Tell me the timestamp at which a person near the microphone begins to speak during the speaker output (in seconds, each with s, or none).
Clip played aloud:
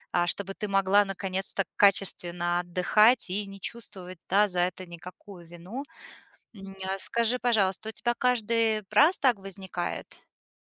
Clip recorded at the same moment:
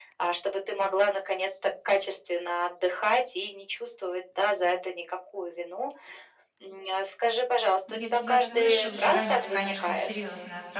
7.9 s